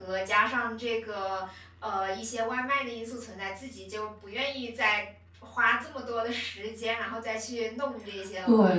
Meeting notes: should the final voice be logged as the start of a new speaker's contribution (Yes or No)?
Yes